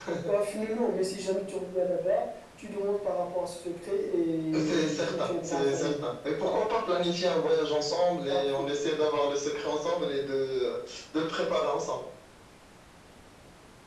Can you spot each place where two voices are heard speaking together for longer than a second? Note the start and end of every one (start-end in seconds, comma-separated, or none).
4.6-5.9